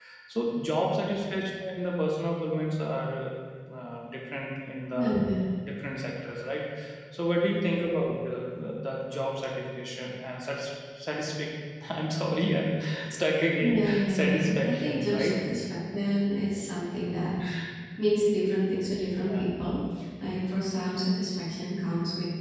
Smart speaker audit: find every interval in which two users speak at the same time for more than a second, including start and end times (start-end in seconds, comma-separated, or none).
13.6-15.4